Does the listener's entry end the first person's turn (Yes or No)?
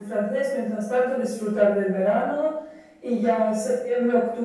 No